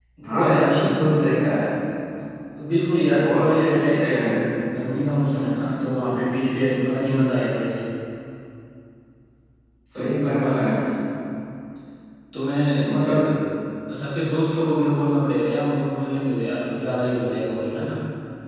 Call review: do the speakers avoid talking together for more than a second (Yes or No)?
No